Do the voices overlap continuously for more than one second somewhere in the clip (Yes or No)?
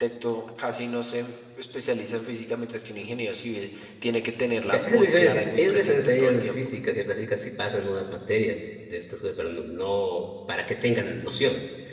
Yes